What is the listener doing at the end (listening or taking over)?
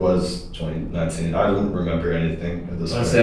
taking over